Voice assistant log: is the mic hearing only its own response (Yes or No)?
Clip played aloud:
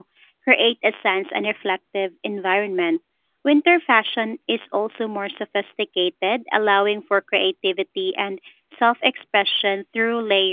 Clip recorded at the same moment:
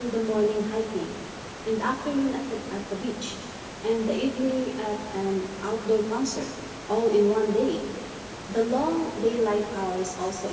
No